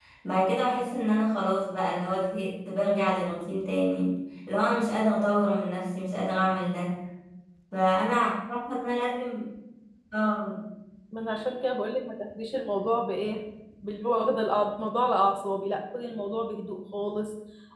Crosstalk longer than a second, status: none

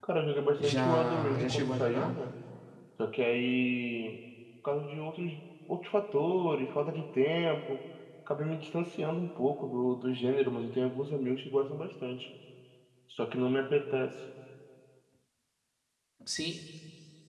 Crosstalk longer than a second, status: present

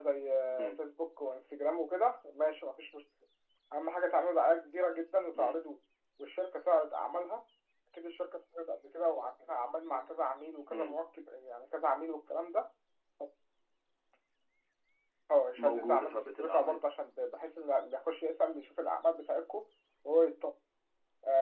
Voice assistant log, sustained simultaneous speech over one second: present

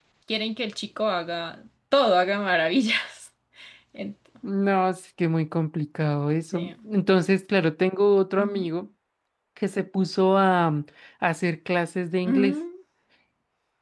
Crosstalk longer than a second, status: none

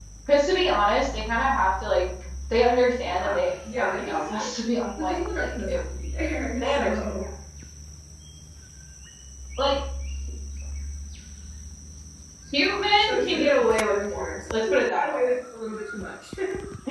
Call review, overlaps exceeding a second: present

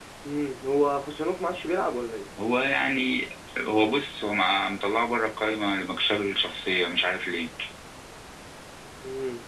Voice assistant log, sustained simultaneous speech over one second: none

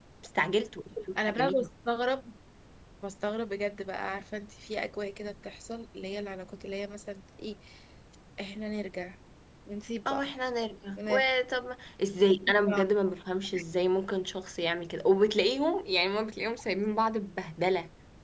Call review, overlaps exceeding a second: none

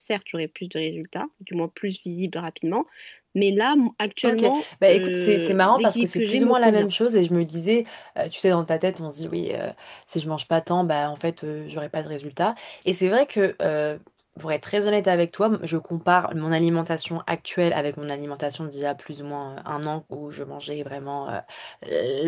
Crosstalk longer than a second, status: present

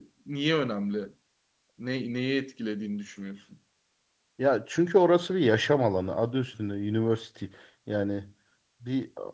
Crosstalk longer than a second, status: none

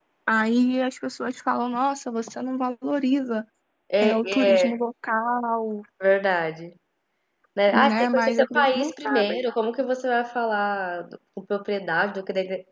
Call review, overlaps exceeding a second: present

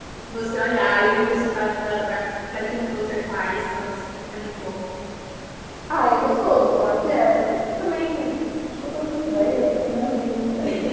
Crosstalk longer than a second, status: none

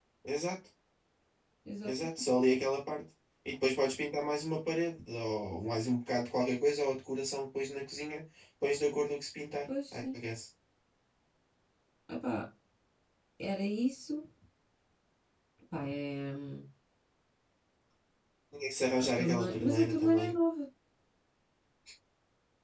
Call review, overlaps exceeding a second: present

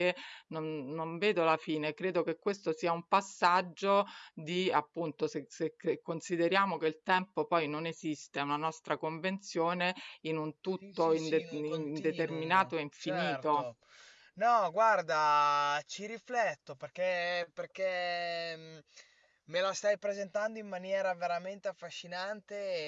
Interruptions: present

